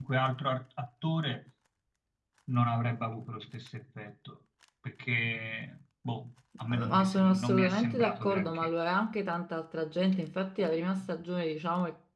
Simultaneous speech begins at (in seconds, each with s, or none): 6.7 s